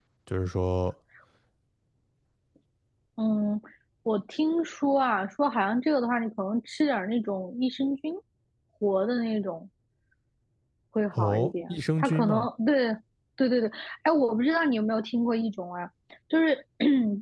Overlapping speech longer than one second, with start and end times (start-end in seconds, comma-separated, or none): 11.1-12.5